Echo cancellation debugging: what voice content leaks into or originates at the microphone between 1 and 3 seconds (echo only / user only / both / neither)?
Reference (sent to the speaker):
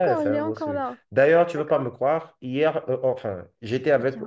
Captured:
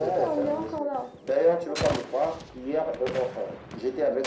echo only